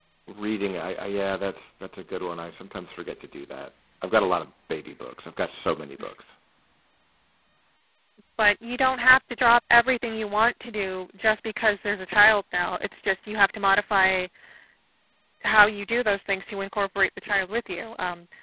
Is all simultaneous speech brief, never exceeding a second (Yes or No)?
Yes